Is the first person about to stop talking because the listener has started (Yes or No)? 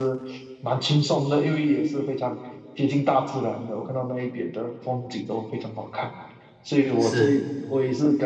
No